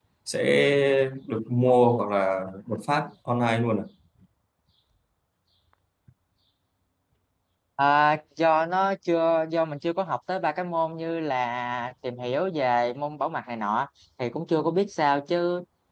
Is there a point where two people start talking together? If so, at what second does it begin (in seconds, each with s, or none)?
none